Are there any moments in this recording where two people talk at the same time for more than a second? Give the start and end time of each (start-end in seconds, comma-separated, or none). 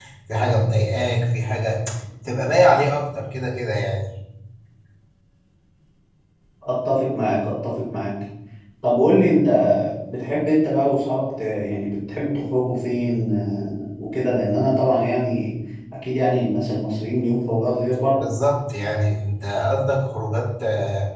none